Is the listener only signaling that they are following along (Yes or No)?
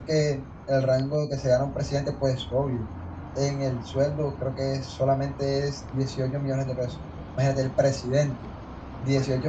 Yes